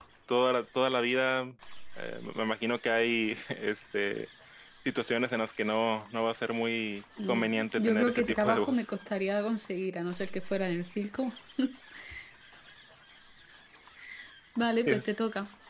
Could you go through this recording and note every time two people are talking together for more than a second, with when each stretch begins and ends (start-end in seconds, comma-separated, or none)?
7.3-8.9